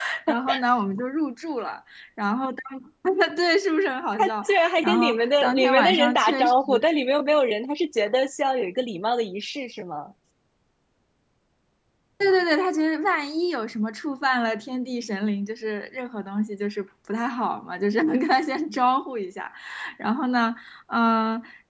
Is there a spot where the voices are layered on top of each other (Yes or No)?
Yes